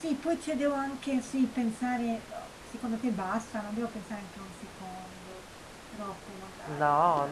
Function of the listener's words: taking over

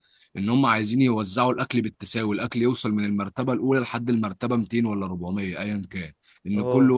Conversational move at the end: listening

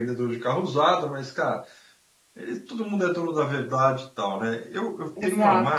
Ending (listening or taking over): taking over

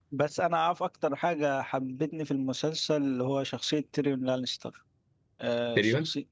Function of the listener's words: listening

